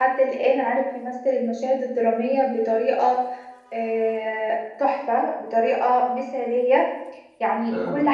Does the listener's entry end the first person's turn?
No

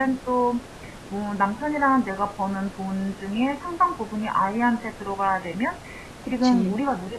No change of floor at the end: Yes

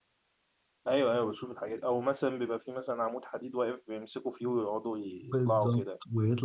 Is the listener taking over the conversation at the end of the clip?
Yes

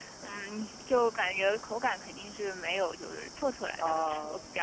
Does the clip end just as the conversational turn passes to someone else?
No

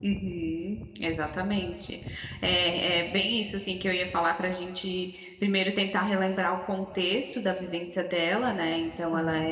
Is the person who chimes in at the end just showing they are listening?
Yes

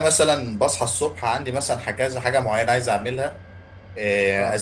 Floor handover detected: No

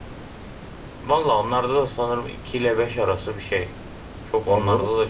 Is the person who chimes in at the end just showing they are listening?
No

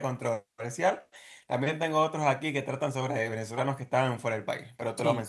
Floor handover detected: Yes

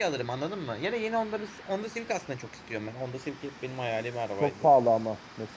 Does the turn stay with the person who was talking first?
No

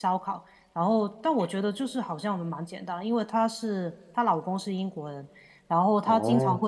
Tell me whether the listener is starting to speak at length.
No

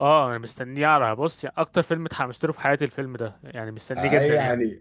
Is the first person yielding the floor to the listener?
Yes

